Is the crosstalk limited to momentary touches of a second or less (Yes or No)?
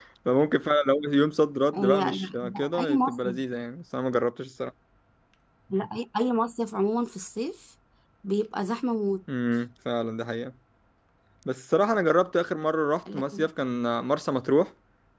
No